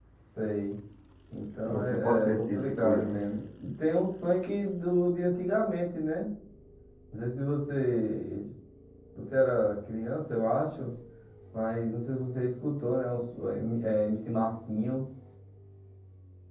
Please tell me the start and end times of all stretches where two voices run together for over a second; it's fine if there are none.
1.7-3.2

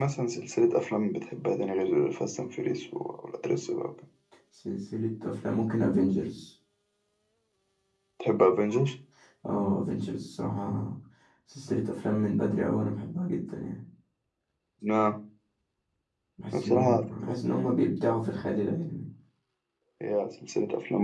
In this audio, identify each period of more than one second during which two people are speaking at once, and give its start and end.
none

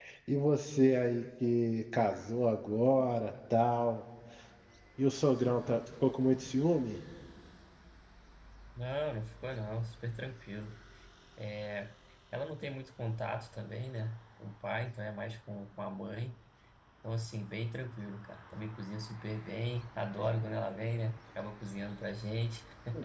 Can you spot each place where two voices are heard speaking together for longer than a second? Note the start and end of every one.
none

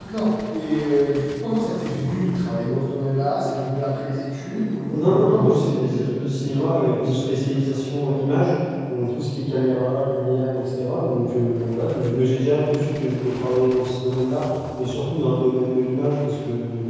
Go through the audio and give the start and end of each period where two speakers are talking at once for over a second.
4.9-7.8

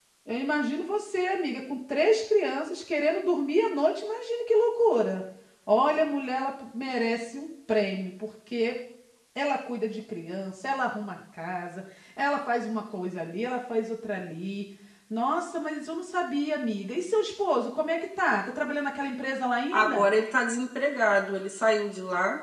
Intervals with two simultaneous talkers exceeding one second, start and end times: none

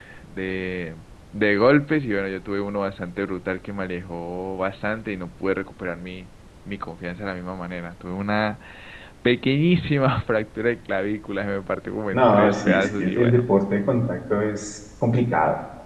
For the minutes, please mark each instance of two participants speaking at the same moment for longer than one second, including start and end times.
12.1-13.4

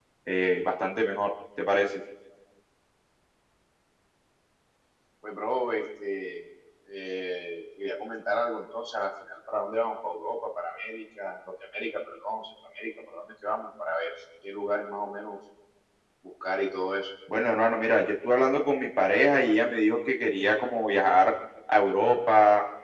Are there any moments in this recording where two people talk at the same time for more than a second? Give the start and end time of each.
none

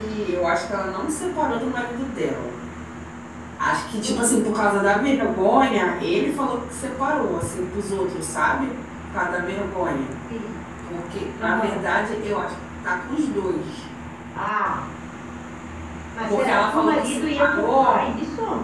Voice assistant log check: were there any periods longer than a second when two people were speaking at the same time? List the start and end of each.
16.3-18.1

